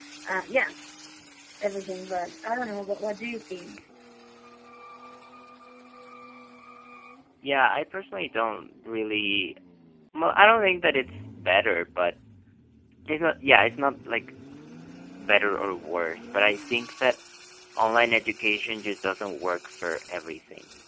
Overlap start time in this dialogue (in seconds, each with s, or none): none